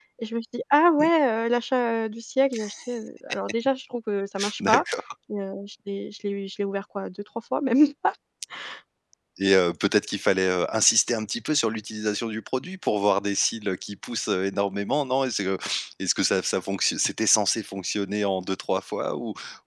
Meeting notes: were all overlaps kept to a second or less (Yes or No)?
Yes